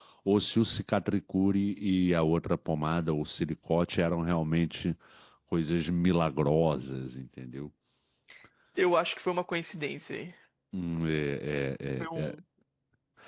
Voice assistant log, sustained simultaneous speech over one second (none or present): none